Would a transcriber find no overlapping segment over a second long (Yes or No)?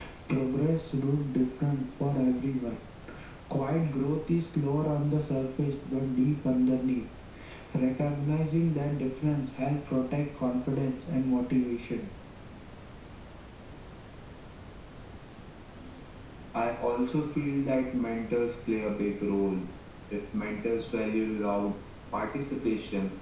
Yes